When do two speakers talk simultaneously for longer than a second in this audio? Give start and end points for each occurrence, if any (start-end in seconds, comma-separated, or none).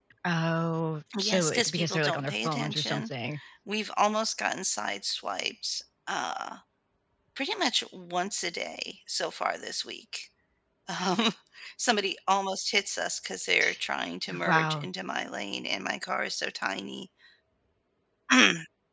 1.2-3.1